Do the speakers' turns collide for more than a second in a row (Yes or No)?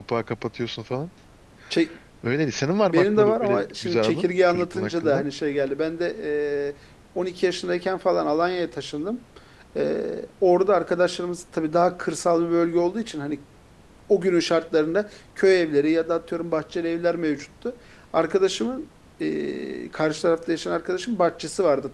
Yes